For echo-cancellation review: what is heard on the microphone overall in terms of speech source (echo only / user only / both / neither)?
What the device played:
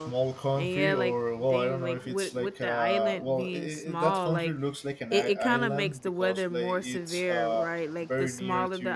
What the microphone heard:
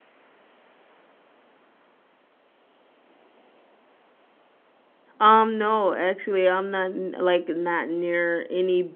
user only